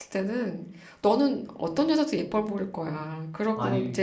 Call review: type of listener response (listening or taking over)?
listening